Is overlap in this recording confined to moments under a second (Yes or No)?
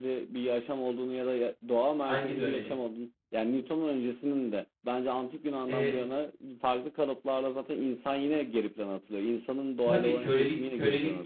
No